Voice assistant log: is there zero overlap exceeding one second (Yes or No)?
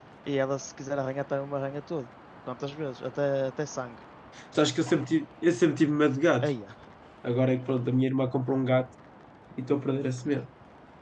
Yes